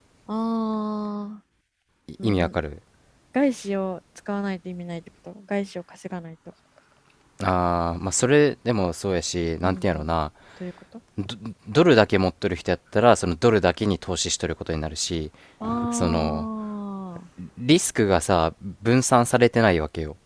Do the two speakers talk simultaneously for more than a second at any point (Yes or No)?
No